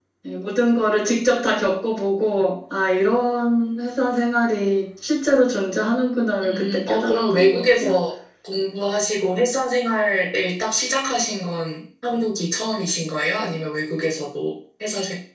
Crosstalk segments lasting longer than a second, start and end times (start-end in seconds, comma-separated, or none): 6.4-7.9